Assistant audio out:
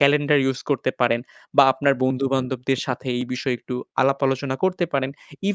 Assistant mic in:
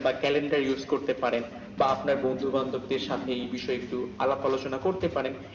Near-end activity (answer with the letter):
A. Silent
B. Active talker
A